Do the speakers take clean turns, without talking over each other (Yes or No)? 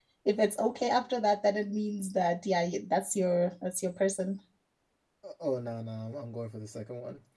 Yes